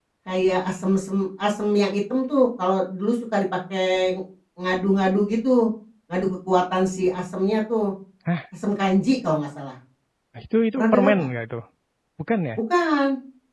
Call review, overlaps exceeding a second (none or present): none